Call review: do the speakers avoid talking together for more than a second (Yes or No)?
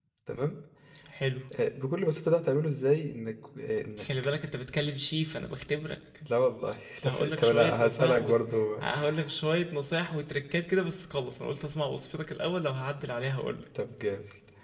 No